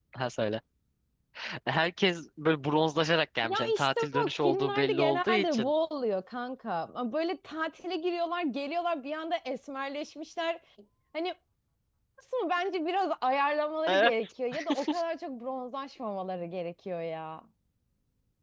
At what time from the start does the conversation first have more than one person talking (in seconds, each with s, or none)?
3.4 s